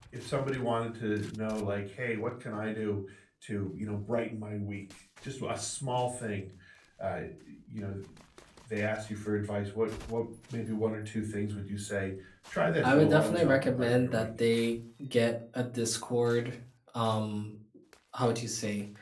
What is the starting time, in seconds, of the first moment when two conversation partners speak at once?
12.8 s

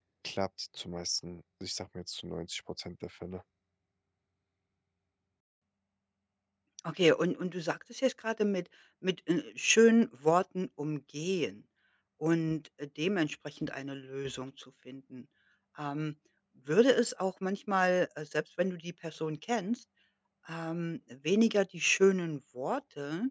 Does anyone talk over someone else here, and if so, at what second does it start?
none

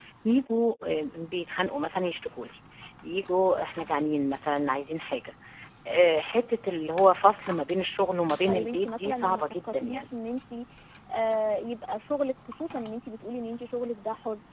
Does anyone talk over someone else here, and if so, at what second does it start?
8.4 s

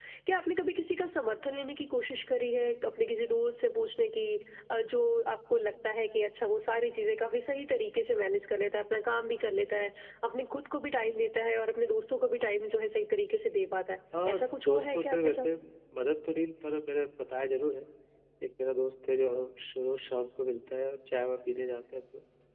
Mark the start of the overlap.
14.1 s

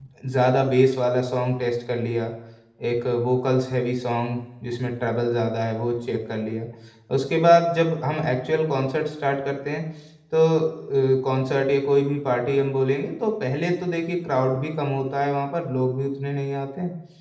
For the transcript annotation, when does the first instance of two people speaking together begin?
none

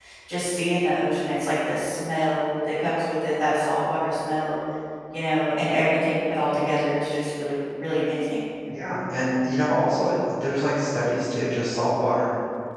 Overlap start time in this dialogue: none

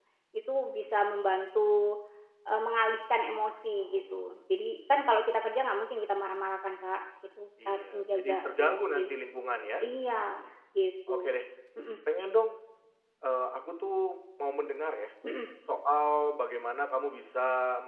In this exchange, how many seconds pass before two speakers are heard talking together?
7.6 s

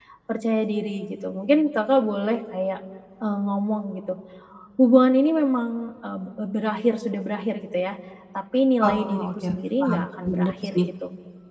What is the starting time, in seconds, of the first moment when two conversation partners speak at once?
8.8 s

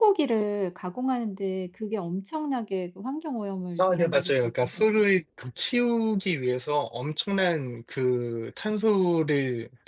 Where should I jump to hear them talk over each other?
3.8 s

